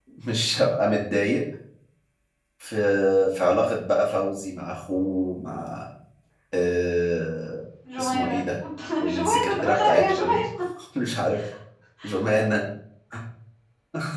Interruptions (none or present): present